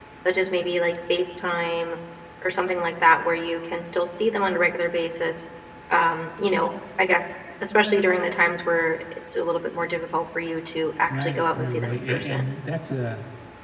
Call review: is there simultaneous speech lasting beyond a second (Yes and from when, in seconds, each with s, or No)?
Yes, from 11.1 s